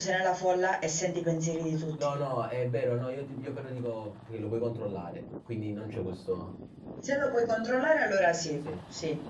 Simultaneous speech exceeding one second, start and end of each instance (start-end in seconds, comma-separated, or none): none